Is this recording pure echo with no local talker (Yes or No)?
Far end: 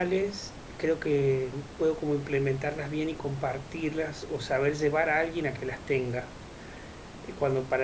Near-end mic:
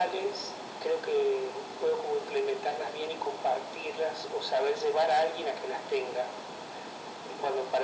Yes